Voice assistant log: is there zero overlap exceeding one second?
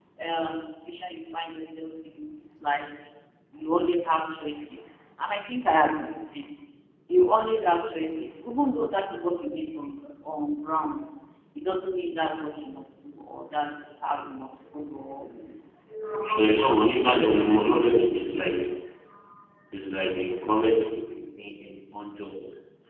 Yes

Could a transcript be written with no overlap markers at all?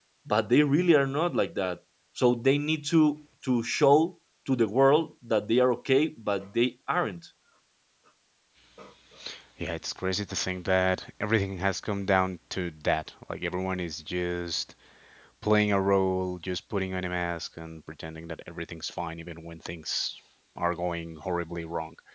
Yes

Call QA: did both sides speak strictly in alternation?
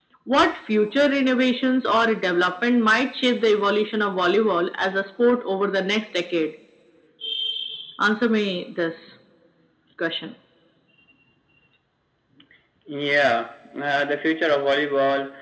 Yes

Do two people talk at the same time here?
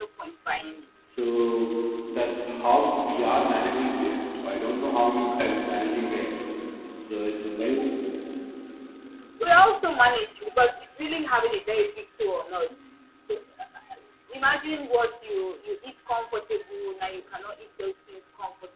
No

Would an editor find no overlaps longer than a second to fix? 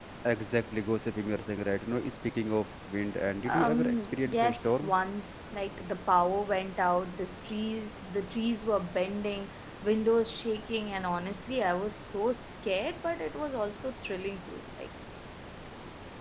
No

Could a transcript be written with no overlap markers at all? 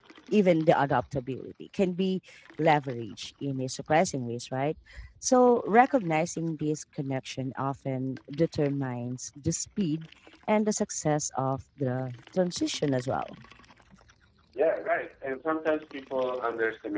Yes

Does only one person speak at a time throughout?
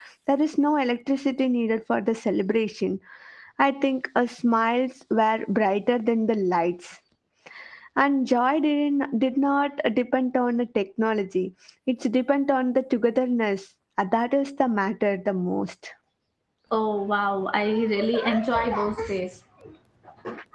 Yes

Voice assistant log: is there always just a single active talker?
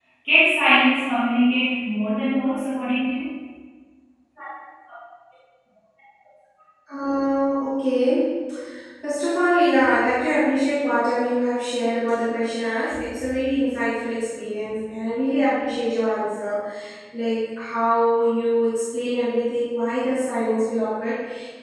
Yes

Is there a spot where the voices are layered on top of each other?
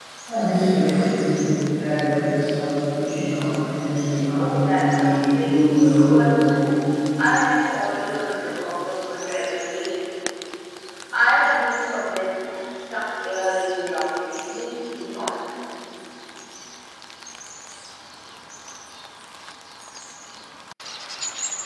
Yes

